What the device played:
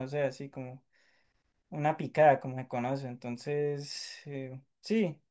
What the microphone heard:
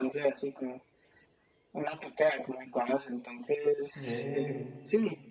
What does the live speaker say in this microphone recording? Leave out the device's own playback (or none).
ve.